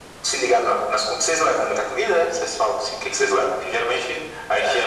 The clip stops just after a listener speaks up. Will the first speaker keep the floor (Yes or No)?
Yes